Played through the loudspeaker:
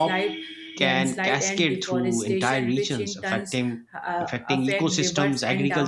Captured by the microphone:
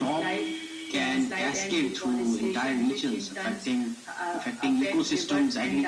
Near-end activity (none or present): none